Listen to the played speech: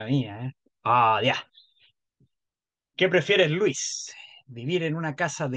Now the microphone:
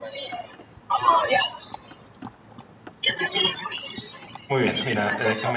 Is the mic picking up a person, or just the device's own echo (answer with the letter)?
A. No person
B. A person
B